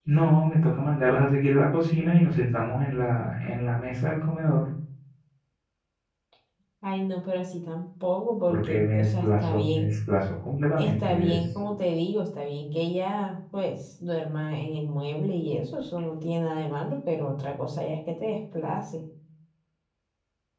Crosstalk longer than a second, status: present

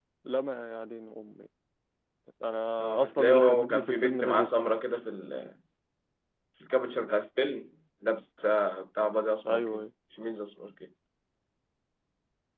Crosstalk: present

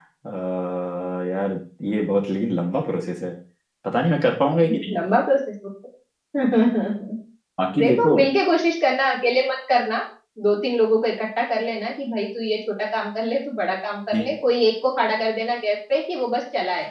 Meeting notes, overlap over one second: none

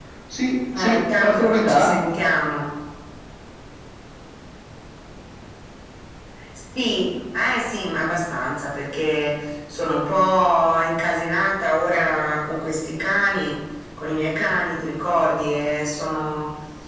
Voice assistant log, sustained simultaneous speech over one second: present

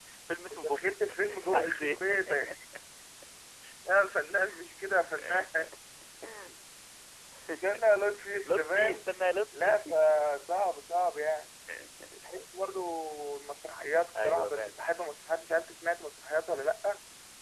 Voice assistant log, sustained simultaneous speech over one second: present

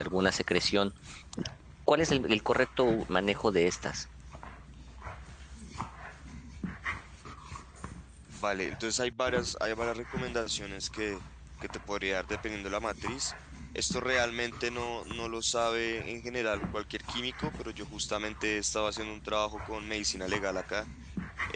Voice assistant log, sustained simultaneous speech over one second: none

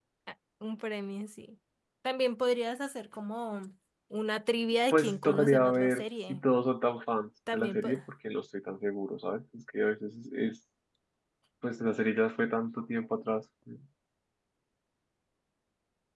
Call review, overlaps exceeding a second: present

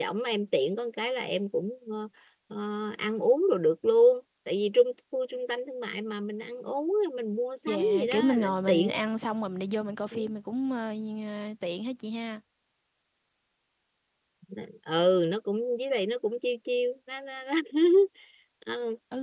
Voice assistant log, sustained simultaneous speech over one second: present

